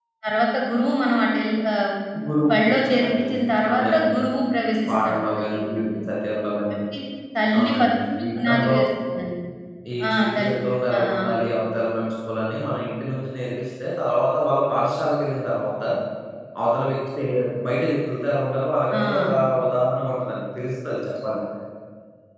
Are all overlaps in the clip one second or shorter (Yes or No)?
No